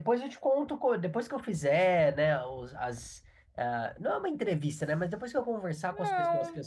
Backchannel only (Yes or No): Yes